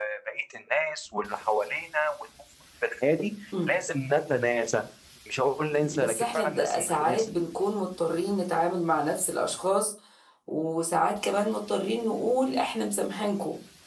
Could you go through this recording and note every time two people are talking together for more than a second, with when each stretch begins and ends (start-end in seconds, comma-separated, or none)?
5.7-7.3